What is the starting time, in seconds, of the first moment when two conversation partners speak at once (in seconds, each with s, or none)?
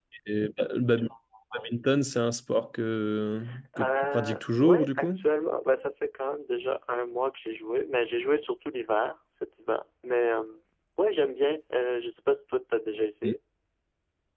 3.8 s